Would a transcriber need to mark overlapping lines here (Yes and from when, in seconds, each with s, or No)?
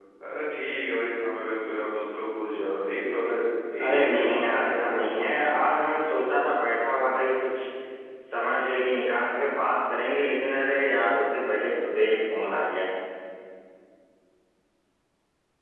Yes, from 3.8 s